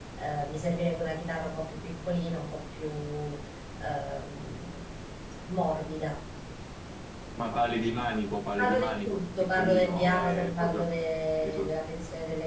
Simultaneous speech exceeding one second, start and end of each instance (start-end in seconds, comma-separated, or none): 8.6-10.9